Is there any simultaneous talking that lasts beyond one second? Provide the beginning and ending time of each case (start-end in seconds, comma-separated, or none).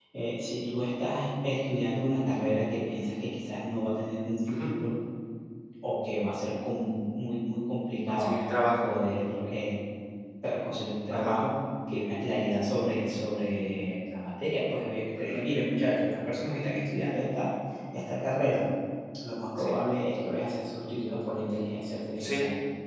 none